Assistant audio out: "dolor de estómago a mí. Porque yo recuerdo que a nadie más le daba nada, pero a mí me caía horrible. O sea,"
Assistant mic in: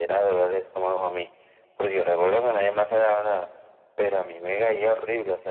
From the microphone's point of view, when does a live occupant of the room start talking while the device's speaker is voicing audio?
none

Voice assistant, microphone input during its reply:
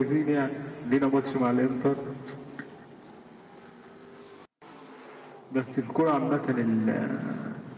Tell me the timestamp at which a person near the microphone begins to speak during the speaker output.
none

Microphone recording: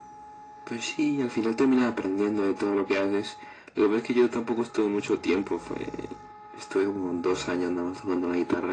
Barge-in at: none

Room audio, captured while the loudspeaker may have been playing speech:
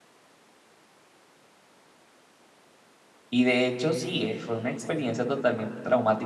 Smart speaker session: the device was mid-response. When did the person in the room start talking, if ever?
3.3 s

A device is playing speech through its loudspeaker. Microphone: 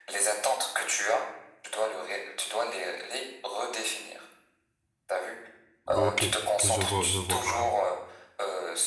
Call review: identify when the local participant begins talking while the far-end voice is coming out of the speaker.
5.9 s

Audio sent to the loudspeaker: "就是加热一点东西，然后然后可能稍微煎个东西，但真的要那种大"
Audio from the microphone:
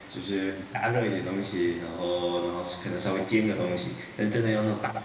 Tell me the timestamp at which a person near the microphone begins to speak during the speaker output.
none

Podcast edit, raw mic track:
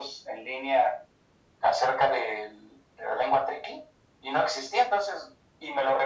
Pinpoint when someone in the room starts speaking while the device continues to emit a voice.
none

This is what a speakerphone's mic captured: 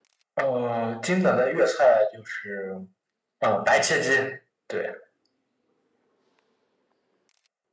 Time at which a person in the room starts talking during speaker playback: none

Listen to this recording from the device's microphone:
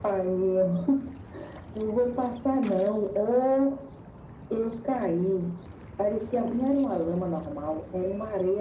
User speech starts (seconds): none

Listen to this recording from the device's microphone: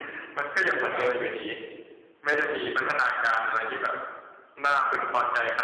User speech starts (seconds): 0.9 s

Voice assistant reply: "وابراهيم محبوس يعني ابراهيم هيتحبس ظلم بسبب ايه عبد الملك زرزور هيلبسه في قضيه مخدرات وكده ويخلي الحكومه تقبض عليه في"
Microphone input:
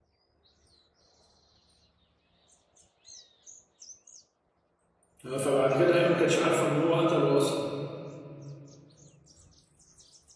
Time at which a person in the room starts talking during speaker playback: 5.2 s

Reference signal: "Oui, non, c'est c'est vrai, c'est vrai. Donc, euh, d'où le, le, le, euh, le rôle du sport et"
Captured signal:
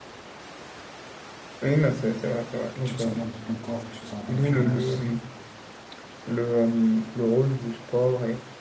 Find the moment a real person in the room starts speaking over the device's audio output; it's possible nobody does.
2.7 s

